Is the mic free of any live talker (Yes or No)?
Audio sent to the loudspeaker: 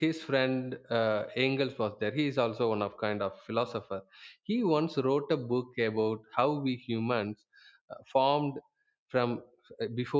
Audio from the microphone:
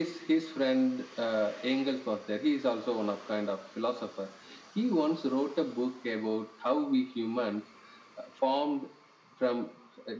Yes